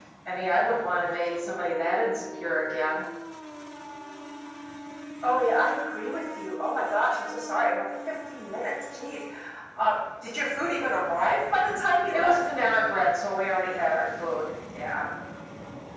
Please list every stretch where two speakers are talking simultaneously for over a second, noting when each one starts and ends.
none

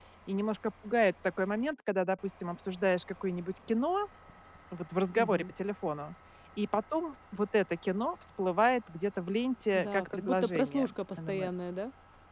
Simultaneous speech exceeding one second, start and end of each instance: 9.7-11.5

